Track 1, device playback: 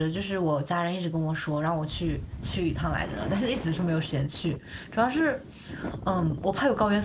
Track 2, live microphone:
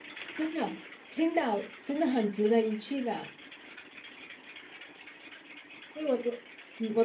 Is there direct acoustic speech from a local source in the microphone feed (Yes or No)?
Yes